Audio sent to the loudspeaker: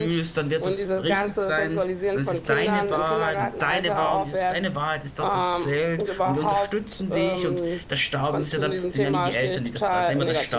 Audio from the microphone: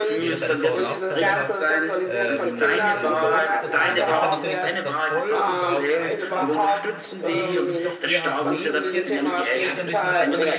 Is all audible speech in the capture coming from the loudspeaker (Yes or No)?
No